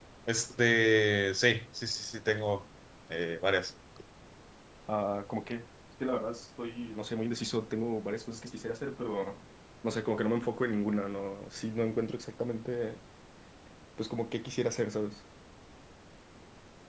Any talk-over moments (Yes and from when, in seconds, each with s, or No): No